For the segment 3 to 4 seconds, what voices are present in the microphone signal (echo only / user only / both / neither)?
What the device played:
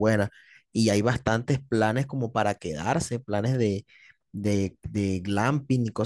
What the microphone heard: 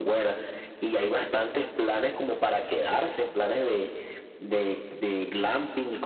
echo only